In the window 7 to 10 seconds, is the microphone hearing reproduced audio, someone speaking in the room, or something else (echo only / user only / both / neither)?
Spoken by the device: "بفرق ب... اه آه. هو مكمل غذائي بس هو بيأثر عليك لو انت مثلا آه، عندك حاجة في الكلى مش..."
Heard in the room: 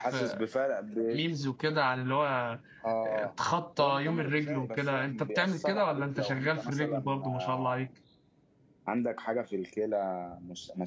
both